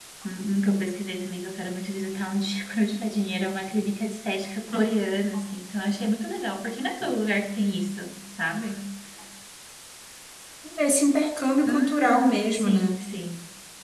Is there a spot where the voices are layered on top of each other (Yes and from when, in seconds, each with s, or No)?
Yes, from 11.7 s